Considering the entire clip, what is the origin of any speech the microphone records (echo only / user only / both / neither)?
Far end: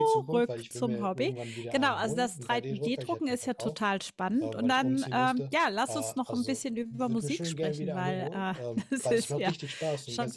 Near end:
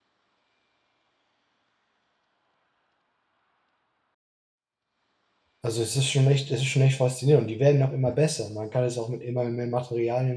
user only